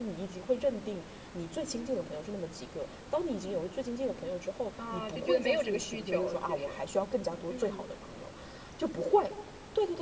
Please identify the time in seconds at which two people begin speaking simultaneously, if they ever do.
4.9 s

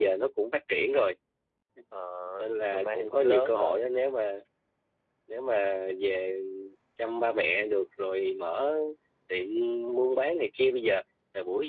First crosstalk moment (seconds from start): 2.4 s

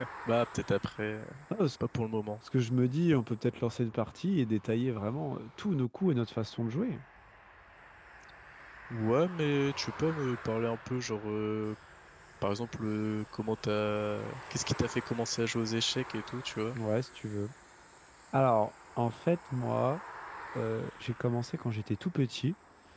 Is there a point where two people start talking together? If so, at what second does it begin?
none

